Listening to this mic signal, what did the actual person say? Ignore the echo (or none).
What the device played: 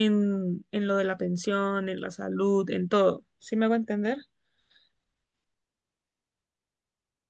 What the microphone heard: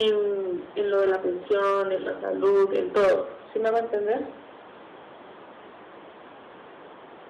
none